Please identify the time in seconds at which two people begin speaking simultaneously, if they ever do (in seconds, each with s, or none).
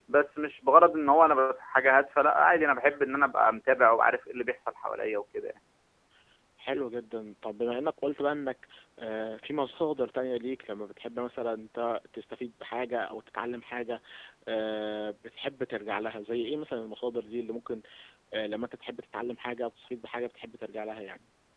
none